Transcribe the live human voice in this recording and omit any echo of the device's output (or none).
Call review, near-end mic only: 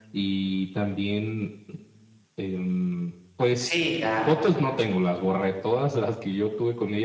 Sí, ya,